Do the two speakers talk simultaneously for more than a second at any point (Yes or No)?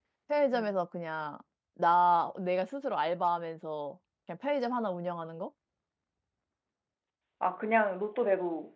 No